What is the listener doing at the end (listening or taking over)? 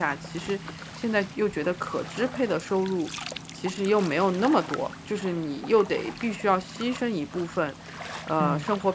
listening